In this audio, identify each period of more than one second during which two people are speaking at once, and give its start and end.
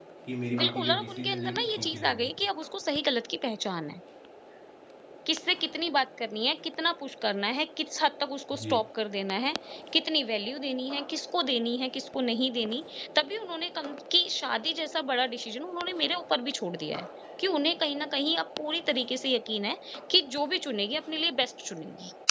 0.6-2.3

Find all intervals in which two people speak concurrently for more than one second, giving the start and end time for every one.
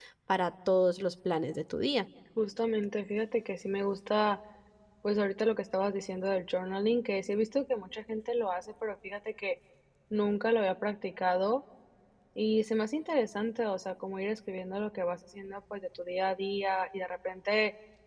none

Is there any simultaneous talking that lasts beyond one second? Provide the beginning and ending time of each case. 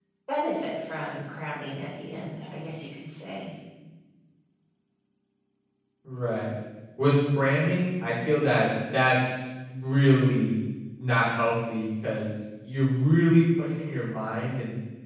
none

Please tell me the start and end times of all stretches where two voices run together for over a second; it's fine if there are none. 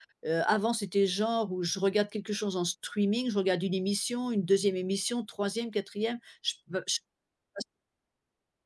none

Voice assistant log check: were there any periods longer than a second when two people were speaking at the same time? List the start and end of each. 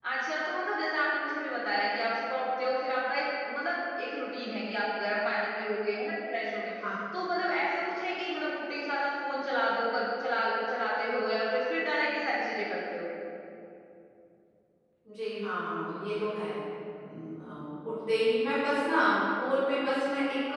none

